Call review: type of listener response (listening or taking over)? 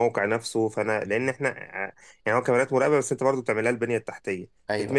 listening